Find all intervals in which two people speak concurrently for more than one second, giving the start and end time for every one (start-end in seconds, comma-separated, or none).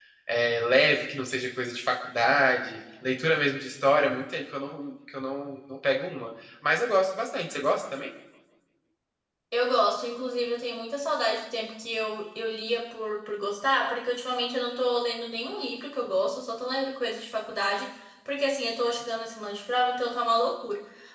none